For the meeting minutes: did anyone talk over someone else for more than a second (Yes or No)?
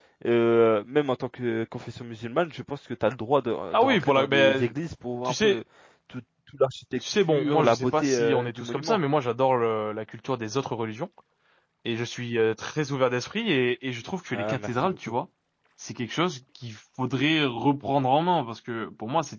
Yes